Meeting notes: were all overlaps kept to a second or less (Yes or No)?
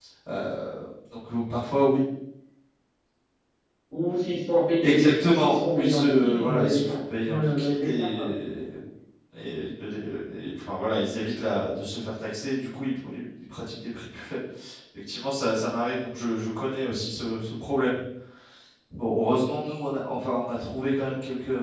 No